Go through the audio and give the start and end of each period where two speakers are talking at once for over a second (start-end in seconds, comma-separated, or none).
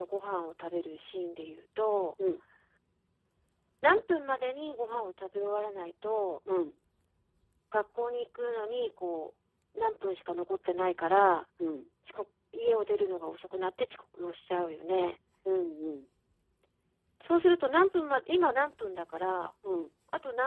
none